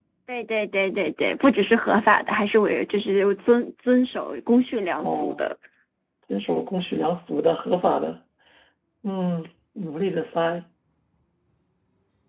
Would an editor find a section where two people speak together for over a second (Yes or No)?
No